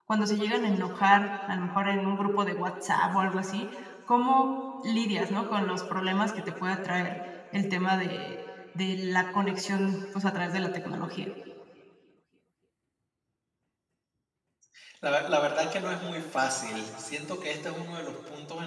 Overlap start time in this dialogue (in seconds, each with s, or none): none